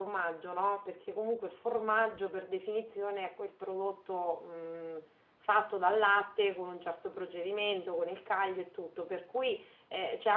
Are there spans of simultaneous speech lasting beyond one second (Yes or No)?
No